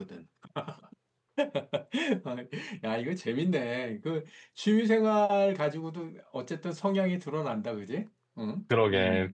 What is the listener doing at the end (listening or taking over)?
taking over